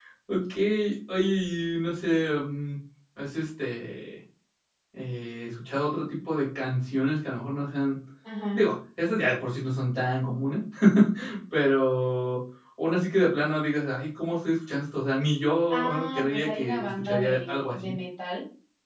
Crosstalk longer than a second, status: present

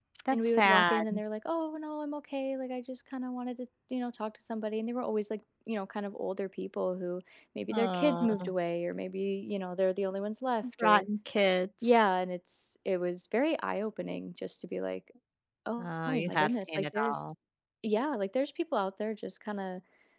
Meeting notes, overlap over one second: present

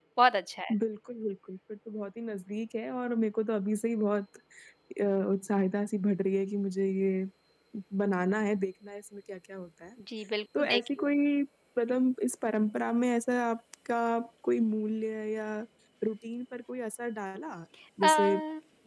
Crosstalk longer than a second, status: none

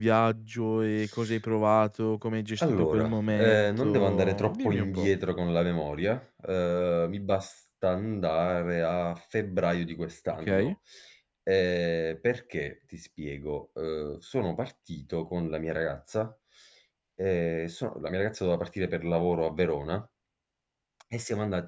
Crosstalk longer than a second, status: present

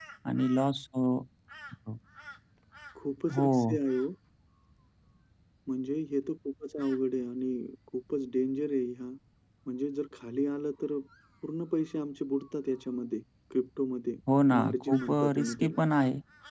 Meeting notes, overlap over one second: present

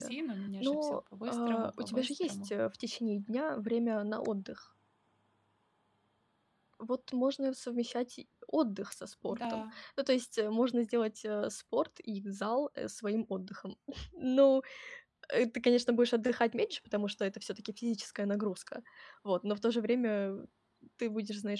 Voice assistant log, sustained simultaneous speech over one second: present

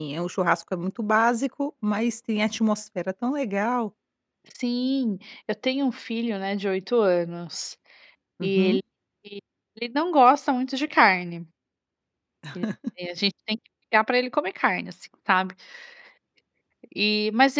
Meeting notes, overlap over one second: none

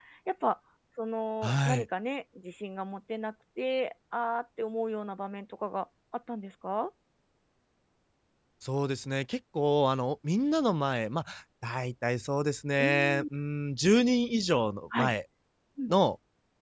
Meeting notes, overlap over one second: none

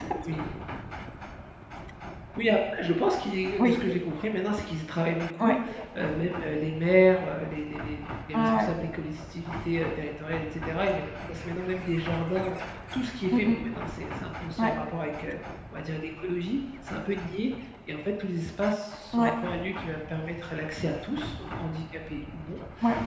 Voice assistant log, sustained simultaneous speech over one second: none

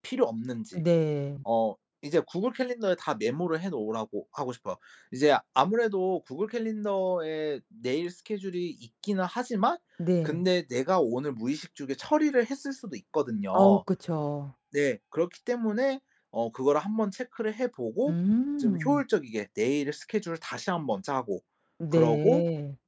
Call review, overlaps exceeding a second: none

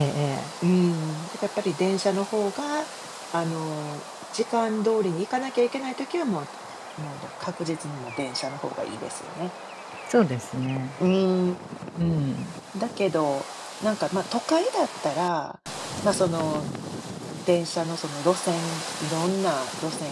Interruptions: none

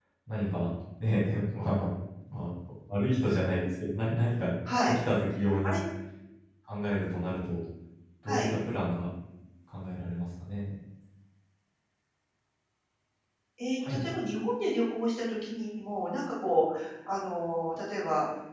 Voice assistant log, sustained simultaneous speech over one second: none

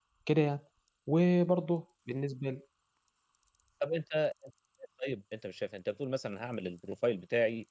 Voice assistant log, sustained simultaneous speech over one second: none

